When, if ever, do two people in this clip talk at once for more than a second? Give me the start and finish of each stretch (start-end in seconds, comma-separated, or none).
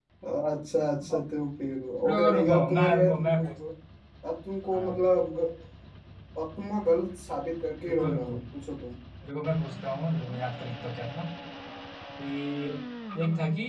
2.1-3.5